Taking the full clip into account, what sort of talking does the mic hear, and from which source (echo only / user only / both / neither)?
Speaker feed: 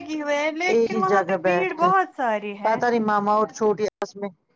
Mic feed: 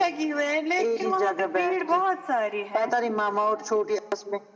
echo only